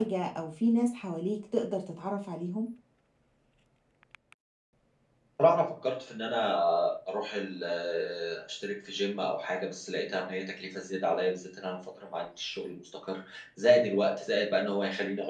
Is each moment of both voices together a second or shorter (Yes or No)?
Yes